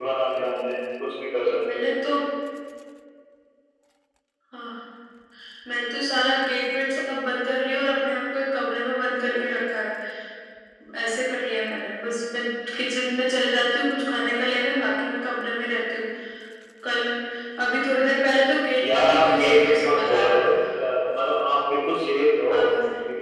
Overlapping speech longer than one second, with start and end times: 18.8-20.6

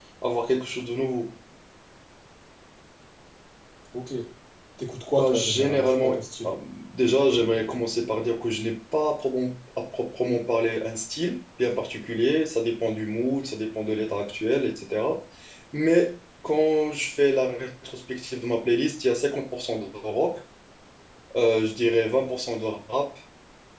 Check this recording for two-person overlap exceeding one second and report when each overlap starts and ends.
5.2-6.5

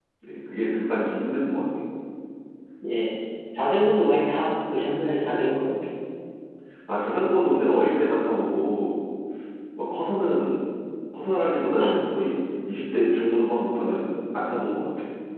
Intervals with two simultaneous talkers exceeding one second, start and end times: none

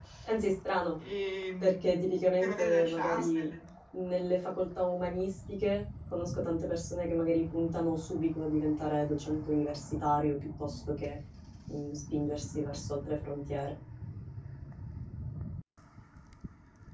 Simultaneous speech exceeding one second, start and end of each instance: 1.6-3.5

